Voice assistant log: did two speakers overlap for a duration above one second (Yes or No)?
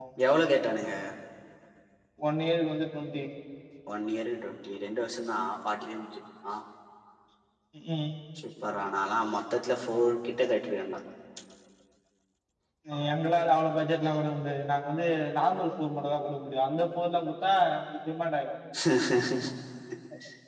No